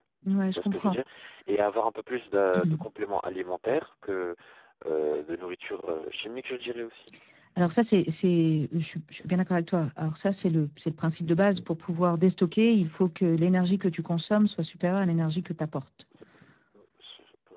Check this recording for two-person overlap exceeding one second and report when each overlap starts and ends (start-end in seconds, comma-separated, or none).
none